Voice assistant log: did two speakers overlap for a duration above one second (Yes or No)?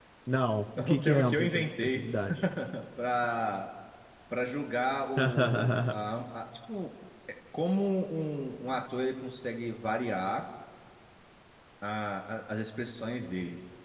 Yes